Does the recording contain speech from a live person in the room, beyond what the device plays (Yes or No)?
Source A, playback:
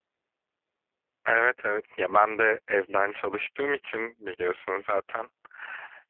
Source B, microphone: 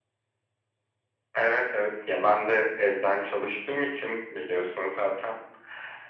No